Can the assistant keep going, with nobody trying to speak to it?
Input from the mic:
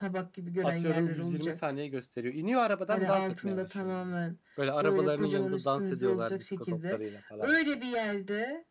No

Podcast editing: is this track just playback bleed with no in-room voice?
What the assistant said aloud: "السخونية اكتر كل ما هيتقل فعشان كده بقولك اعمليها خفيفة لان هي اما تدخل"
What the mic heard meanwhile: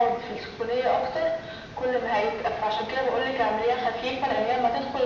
Yes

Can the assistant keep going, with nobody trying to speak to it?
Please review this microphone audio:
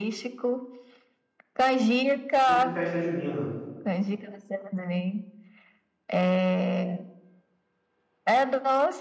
No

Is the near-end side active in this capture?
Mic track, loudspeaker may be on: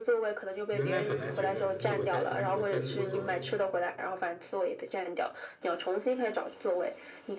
Yes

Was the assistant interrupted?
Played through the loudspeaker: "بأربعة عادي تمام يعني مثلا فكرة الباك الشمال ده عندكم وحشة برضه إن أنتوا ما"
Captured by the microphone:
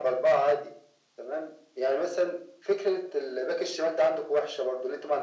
No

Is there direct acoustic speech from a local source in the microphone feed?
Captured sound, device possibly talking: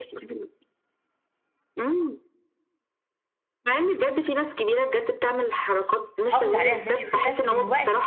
Yes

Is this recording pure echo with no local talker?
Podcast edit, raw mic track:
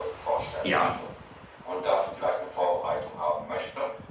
No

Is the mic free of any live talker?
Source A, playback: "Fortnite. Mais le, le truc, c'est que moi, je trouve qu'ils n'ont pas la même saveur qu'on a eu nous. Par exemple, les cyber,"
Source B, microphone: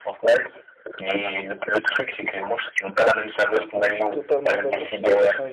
No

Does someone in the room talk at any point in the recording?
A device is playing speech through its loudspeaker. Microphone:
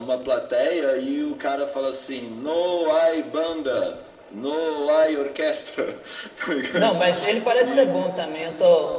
Yes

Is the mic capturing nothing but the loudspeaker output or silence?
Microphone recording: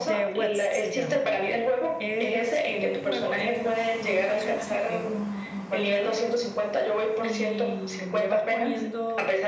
No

